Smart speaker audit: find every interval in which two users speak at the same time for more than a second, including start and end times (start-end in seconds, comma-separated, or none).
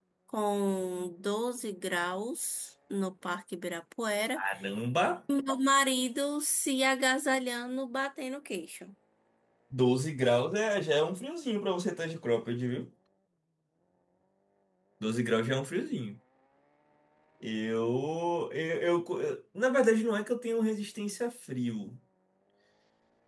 none